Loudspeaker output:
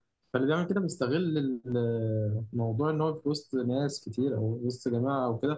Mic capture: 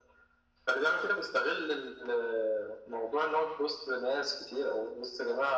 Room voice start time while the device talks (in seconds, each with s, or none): none